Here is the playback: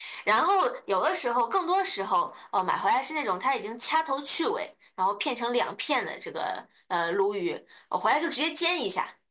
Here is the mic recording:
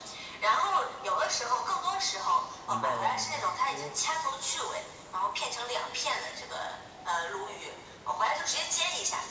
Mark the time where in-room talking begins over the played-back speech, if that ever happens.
2.6 s

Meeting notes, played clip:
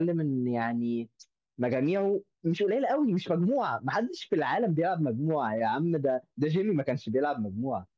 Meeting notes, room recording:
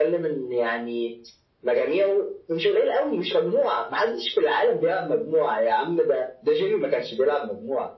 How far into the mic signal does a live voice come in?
none

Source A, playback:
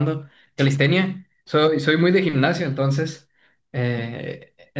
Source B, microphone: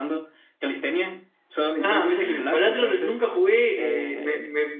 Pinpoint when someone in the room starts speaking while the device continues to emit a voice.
1.8 s

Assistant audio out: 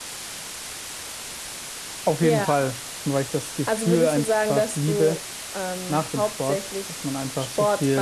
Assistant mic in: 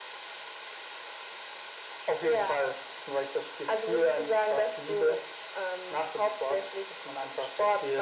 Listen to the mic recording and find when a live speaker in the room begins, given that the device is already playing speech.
none

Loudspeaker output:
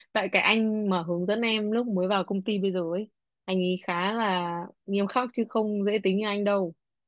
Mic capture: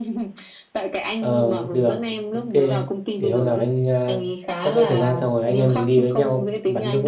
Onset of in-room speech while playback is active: 1.2 s

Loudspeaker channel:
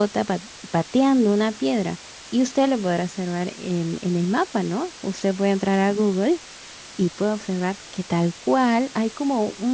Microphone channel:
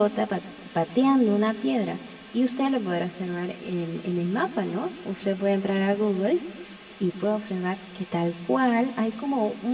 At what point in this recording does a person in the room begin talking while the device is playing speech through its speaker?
none

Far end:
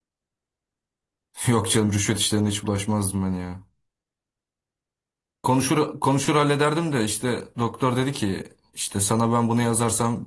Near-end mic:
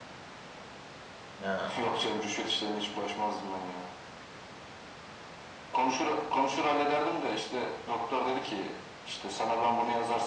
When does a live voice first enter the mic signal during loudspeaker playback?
1.4 s

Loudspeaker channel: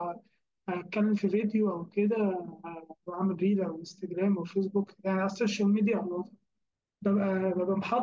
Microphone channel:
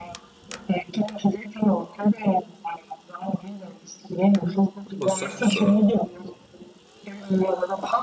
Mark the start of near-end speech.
4.9 s

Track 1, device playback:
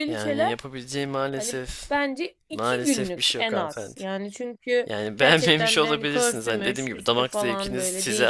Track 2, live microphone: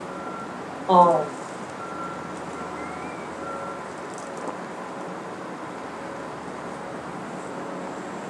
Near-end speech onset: 0.9 s

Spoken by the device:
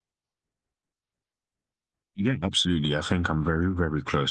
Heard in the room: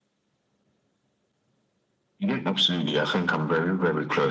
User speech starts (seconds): none

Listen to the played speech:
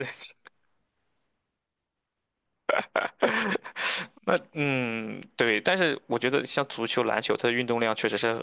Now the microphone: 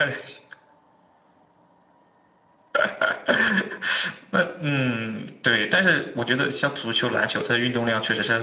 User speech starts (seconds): none

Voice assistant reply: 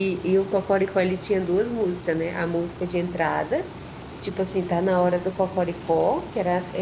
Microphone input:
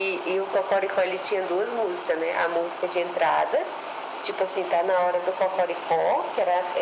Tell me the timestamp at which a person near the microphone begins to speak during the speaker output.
none

